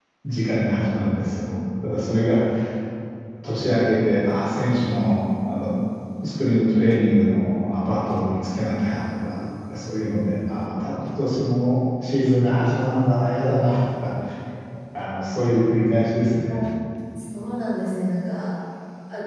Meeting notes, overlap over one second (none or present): none